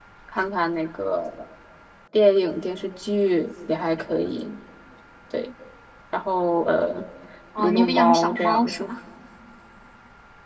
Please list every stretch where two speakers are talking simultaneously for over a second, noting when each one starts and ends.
7.6-8.8

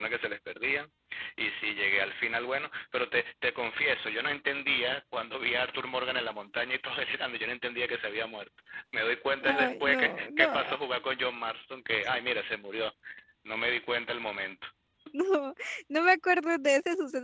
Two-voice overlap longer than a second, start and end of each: 9.4-10.8

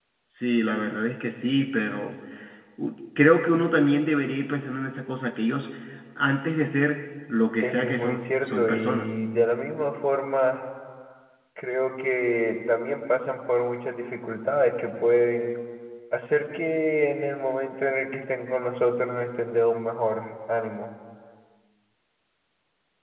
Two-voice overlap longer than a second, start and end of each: 7.6-9.1

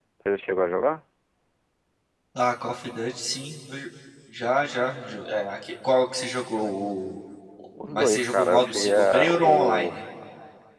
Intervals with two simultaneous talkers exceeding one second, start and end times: 7.9-9.9

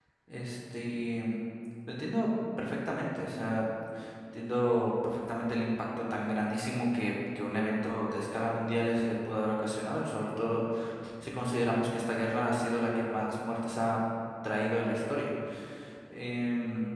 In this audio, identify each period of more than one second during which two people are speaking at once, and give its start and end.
none

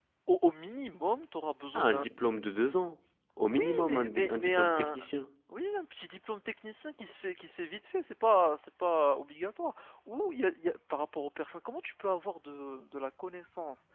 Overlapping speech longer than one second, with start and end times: 3.5-5.0

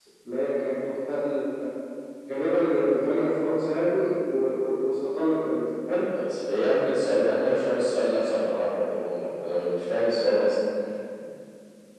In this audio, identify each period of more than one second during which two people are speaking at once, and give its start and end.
none

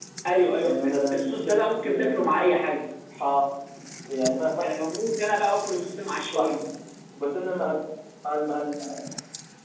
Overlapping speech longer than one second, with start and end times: 0.6-2.3

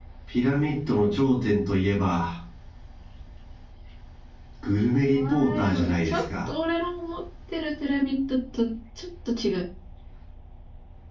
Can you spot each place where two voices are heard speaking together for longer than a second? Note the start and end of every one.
5.1-6.5

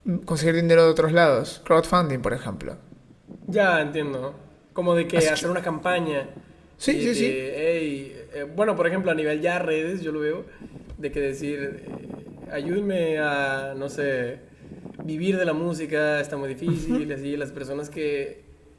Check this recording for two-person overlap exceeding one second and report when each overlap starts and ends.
none

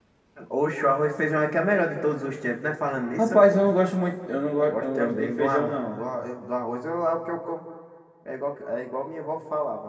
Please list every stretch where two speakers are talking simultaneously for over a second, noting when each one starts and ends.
4.7-6.0

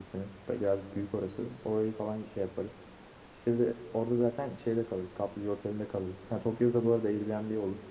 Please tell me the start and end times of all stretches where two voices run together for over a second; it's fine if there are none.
none

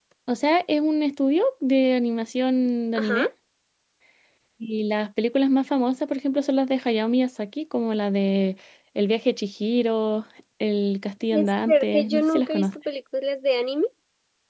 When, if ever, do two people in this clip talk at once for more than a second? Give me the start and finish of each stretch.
11.3-12.7

